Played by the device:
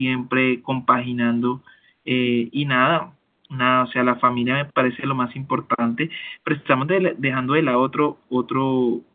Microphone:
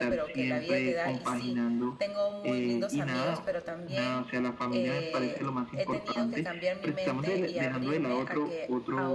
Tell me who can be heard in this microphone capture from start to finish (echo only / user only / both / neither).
both